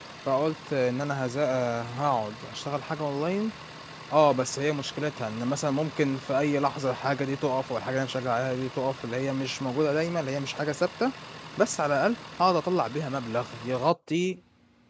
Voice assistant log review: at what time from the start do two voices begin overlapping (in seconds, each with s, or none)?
none